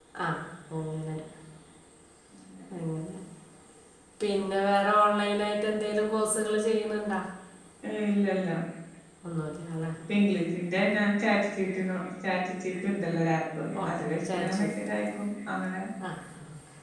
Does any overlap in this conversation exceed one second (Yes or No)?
No